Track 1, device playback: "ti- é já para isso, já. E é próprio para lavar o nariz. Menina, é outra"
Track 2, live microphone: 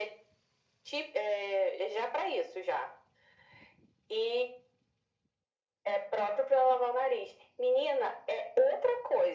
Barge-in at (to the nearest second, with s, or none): none